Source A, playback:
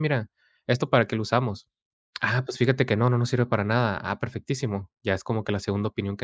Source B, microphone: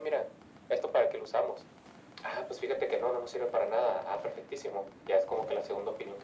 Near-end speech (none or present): none